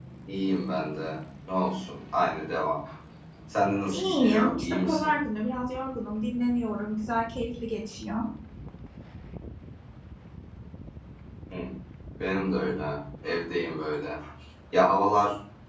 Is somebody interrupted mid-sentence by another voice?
Yes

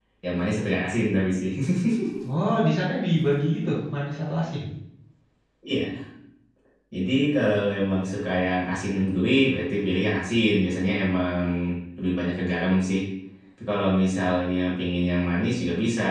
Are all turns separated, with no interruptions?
Yes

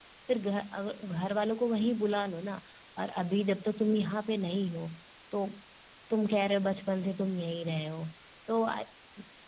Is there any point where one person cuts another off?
No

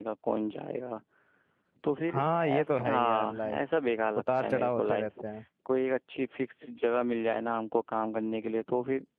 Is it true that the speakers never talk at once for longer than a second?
No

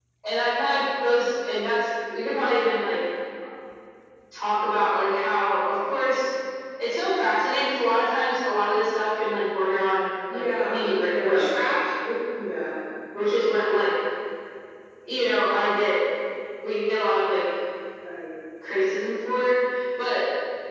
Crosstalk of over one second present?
Yes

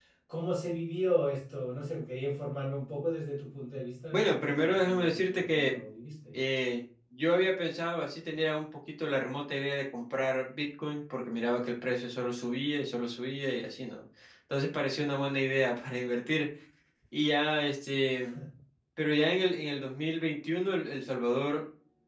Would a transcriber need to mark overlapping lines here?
Yes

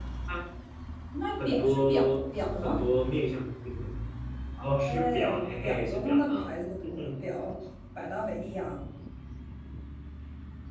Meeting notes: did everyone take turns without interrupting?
No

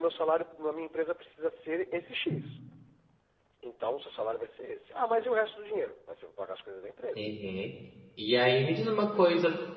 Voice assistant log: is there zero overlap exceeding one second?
Yes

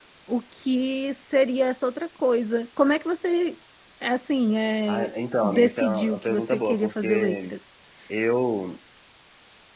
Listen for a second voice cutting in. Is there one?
Yes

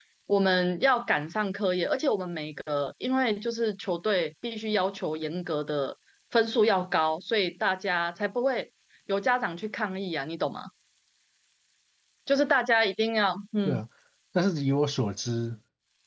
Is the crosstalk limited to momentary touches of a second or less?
Yes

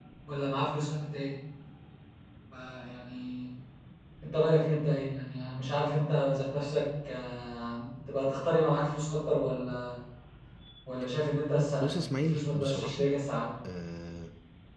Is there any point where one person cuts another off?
Yes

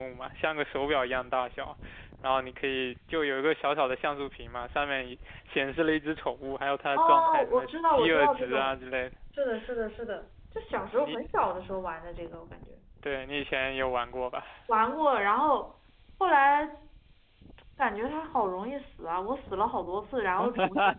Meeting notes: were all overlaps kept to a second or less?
No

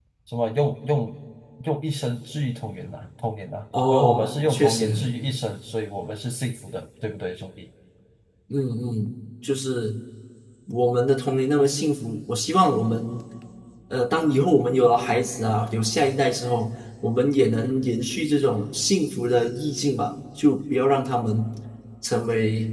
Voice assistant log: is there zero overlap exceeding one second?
No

